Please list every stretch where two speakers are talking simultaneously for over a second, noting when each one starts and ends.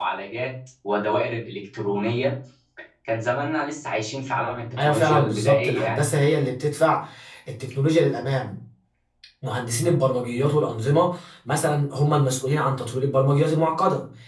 4.8-6.0

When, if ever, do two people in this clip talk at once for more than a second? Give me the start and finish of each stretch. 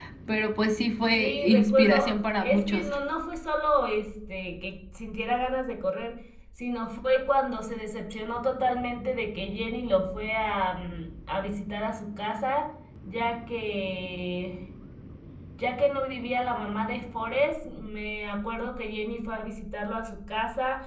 1.1-2.9

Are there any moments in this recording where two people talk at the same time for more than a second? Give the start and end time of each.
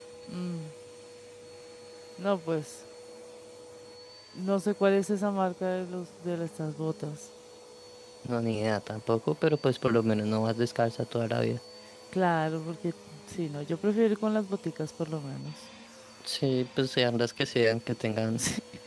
none

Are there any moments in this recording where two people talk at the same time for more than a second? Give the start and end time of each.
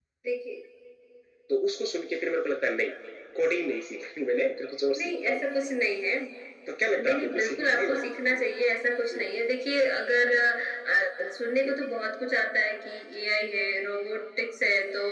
7.0-8.4

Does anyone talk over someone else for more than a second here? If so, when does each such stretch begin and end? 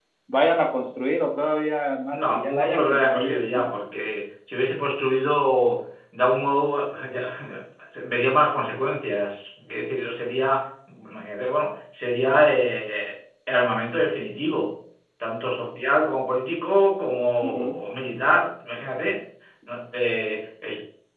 2.1-3.4

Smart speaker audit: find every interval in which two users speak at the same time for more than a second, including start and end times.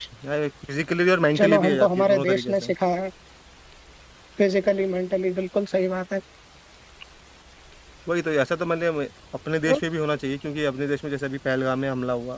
1.4-2.6

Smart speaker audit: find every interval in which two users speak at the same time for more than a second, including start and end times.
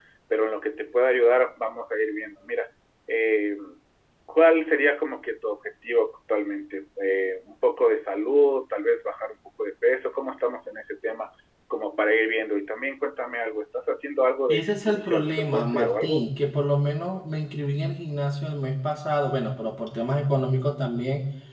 14.5-16.2

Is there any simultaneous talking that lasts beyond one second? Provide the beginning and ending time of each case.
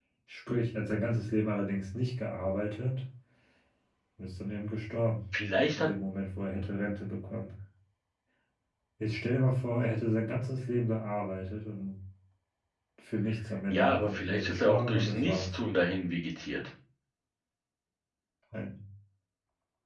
13.7-15.5

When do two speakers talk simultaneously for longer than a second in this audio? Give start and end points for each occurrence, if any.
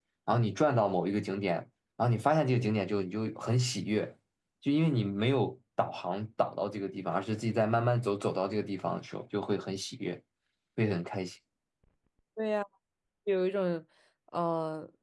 none

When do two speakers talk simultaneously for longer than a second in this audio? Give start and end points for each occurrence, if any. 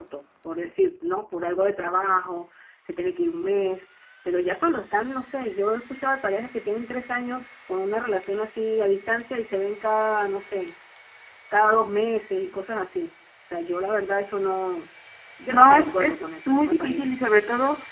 15.5-17.2

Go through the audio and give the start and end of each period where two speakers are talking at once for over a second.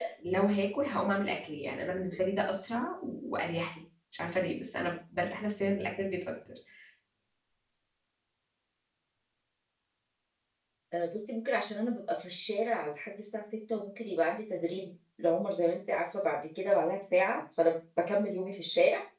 none

